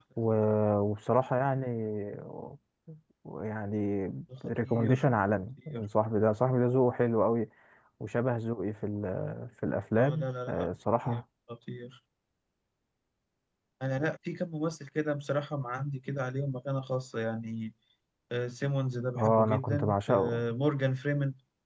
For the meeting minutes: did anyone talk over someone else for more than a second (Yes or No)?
Yes